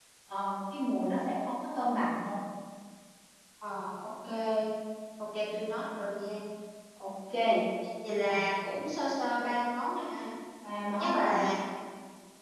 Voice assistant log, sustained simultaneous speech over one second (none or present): none